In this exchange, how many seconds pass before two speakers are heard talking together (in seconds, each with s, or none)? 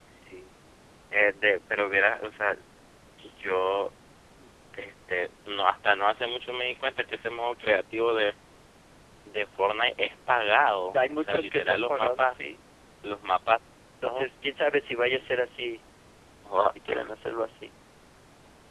11.1 s